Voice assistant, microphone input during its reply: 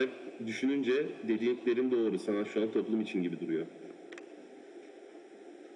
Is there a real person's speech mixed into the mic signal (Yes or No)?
No